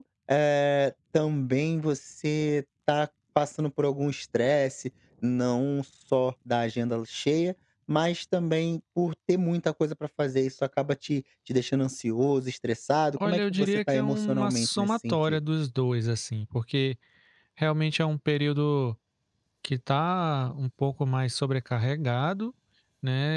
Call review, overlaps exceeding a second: present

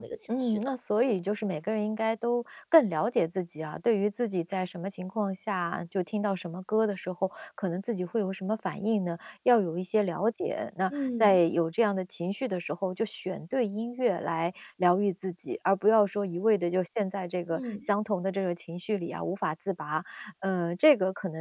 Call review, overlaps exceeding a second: none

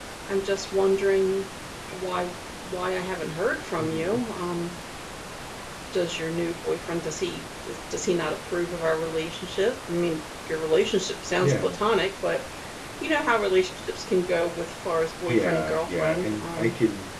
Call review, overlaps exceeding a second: present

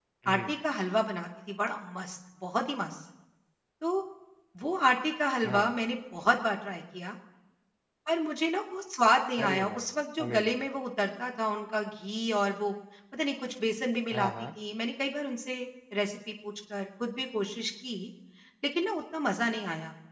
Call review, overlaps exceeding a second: none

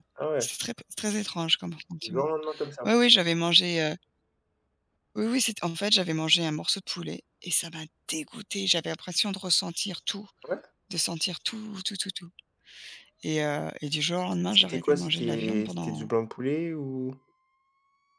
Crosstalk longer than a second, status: present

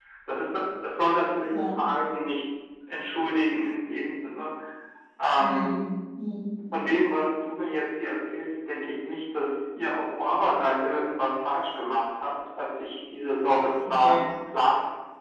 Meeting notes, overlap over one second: none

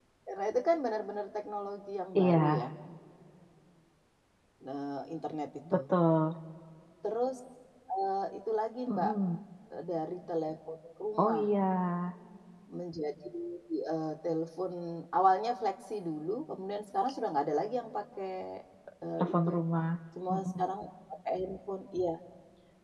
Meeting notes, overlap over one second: none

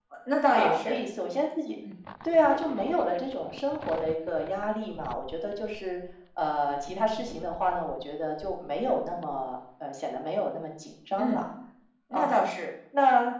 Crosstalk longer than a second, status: none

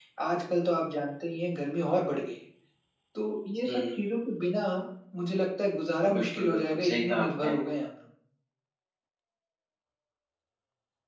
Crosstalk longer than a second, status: present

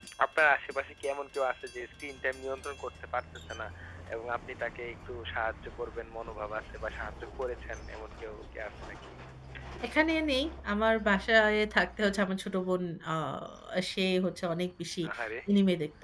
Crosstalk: none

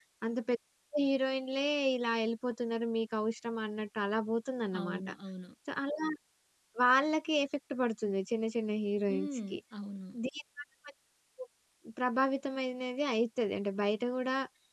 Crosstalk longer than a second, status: none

